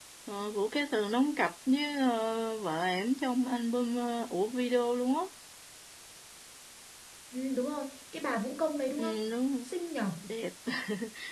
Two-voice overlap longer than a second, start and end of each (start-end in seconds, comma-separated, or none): none